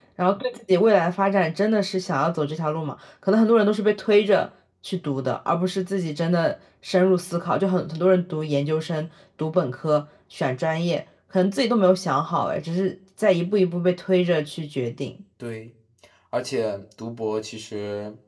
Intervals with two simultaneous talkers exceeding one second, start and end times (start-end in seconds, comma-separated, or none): none